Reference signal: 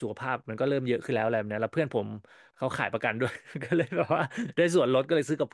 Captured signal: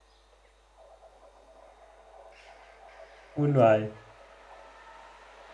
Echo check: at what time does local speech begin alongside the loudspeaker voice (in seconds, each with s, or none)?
3.4 s